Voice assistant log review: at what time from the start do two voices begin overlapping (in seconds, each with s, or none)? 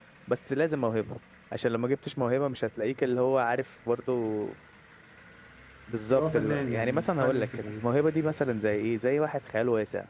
6.1 s